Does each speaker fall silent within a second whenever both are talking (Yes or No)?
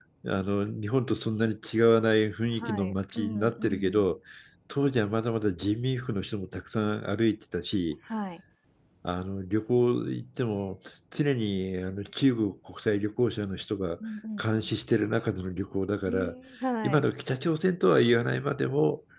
No